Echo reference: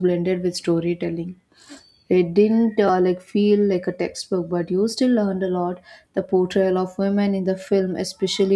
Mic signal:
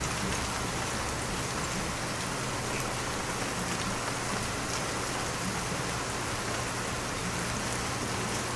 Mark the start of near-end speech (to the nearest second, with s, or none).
none